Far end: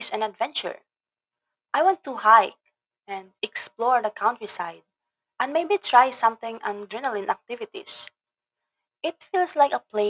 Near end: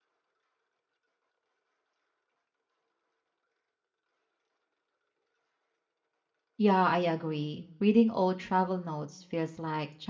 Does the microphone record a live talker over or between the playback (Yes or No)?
Yes